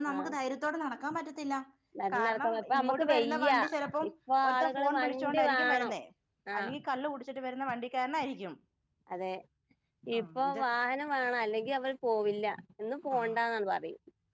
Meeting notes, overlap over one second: present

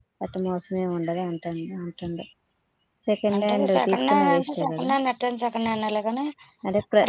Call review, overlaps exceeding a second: present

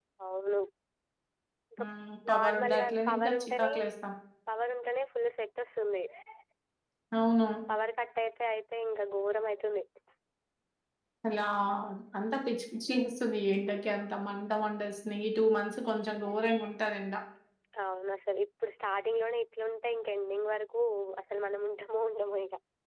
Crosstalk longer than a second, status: present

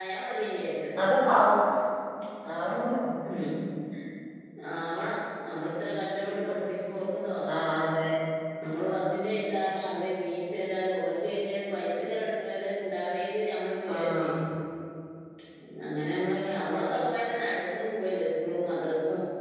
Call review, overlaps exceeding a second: none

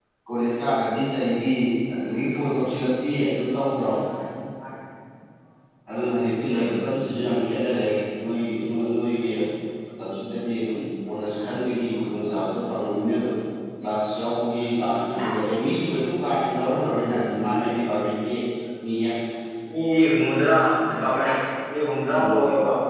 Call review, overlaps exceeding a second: none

